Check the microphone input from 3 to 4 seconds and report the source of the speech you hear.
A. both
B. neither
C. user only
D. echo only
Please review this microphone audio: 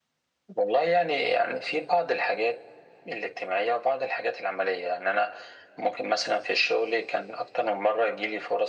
D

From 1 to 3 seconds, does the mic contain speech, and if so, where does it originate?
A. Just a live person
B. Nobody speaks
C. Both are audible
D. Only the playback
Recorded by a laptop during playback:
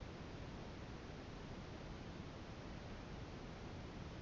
B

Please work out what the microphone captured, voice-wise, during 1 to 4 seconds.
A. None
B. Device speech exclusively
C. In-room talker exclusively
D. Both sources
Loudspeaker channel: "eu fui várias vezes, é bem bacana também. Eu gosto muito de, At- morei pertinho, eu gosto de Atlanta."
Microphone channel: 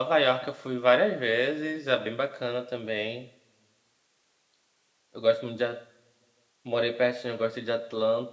B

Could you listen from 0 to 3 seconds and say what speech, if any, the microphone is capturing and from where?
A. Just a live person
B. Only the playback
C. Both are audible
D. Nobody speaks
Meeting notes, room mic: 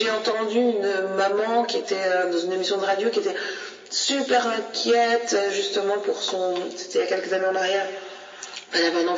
B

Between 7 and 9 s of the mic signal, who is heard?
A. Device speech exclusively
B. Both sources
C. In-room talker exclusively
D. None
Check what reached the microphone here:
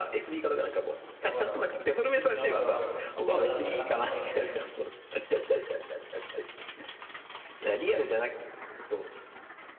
A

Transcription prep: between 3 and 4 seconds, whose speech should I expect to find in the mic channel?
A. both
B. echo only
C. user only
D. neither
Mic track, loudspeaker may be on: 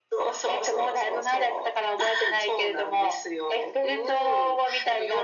B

